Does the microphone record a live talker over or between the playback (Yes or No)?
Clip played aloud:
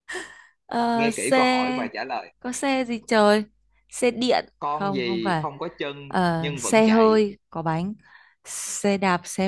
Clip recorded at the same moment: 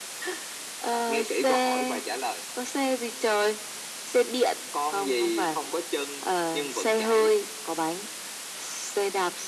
No